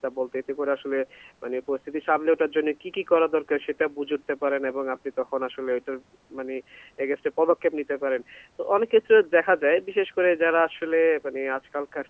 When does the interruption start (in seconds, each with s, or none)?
none